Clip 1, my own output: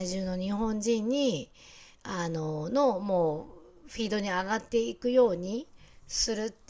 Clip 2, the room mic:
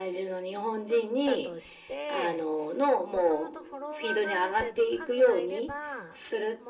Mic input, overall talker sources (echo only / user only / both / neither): both